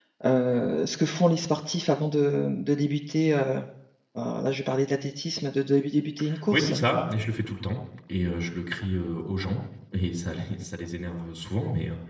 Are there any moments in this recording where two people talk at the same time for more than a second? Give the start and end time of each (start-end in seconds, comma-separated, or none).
none